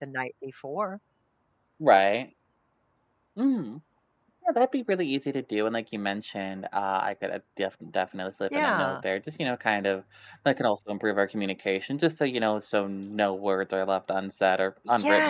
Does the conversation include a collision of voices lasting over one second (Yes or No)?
No